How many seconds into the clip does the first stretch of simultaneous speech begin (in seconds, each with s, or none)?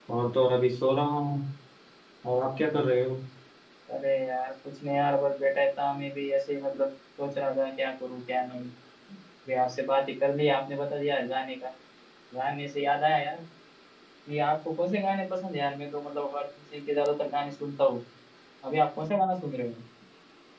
none